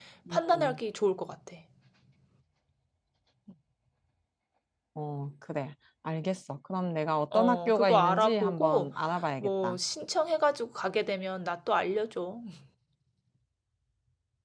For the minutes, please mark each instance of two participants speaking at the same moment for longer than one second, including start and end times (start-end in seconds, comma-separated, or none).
7.3-8.9